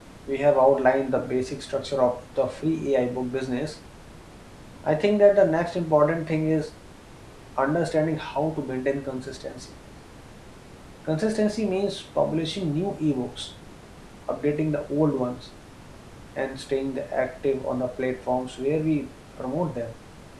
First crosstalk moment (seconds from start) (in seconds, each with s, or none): none